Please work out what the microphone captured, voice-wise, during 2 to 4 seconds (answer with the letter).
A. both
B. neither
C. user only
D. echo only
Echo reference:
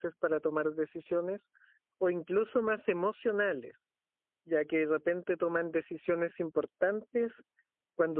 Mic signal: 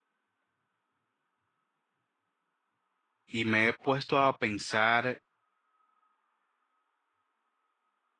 C